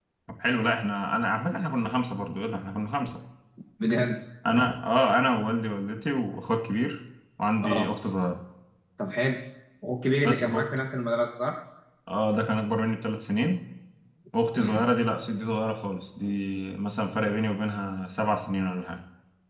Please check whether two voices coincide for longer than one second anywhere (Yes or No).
No